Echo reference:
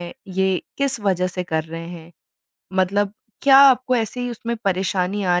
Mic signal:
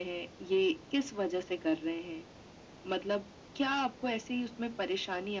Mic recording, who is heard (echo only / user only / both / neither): echo only